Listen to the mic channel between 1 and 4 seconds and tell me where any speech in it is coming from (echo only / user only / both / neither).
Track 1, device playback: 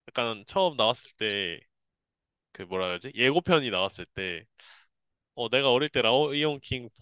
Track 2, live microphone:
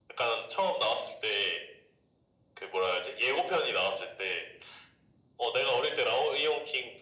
echo only